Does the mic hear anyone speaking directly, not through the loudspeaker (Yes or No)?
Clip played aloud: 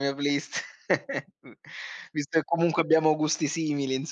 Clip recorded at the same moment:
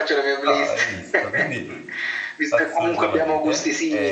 Yes